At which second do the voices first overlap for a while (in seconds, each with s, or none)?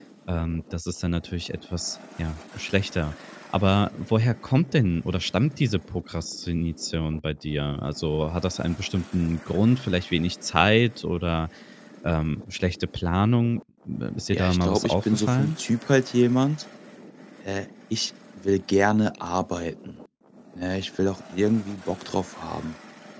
14.3 s